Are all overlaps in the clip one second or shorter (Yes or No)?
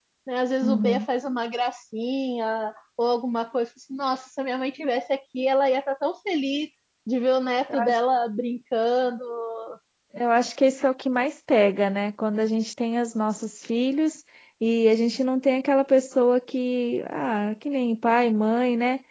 Yes